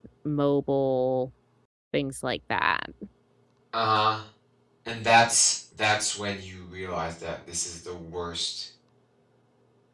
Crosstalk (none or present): none